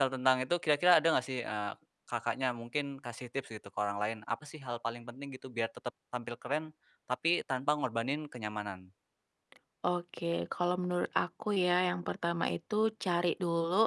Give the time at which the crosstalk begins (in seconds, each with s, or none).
none